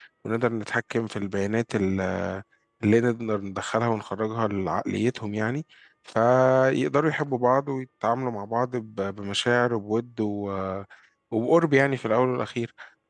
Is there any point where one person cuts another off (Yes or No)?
No